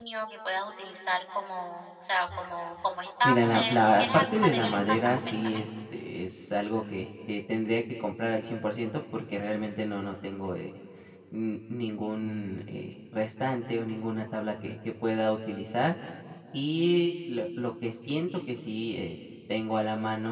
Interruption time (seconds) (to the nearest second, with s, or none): 3 s